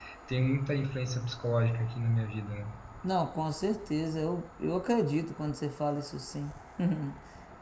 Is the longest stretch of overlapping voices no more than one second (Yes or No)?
Yes